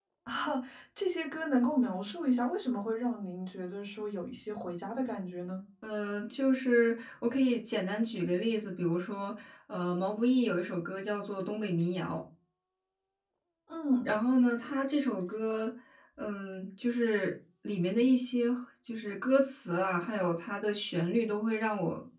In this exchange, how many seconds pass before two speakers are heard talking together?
none

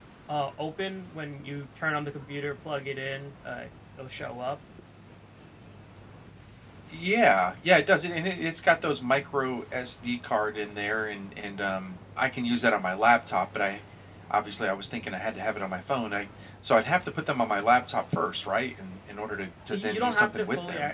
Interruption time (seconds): 19.7 s

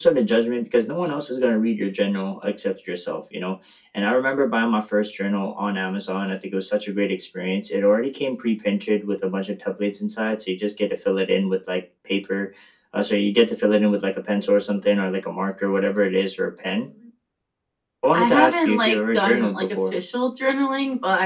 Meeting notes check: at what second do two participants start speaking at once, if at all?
18.2 s

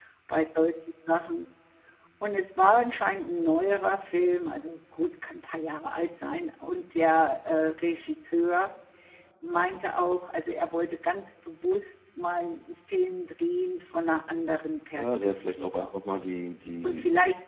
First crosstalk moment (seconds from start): 14.9 s

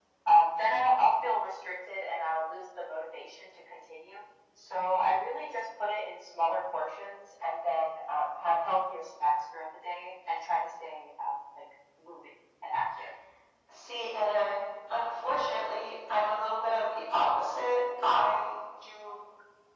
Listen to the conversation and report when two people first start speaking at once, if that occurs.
none

